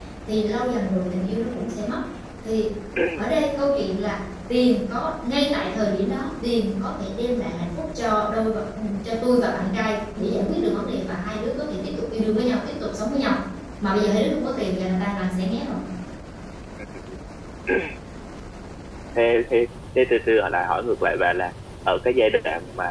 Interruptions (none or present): none